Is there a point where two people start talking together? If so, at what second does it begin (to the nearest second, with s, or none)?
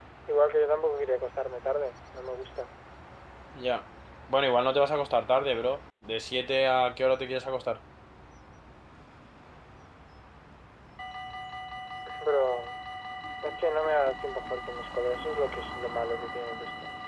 none